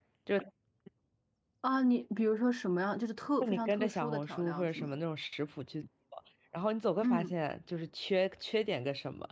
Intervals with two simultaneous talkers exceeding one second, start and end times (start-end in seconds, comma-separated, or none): 3.4-5.0